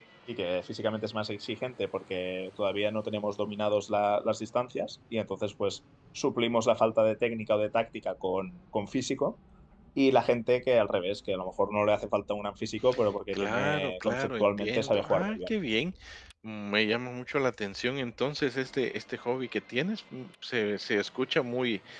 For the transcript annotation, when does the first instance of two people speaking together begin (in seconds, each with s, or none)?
13.3 s